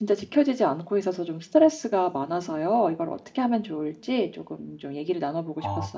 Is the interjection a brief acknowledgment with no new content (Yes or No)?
No